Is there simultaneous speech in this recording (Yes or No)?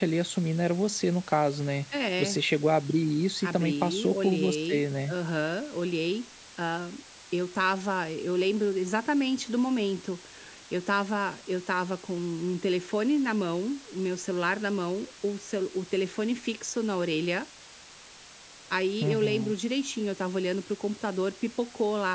Yes